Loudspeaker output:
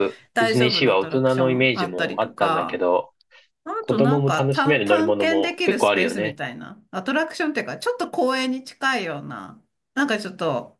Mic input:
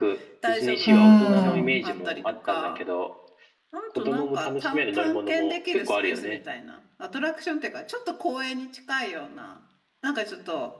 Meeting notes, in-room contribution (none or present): present